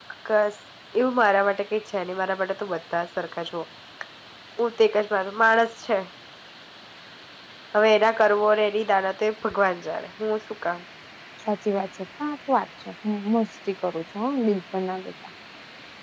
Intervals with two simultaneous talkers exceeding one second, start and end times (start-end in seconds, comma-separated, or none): none